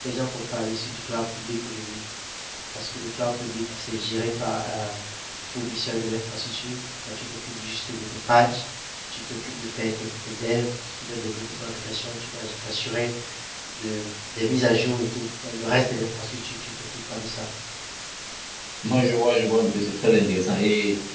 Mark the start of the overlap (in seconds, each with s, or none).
none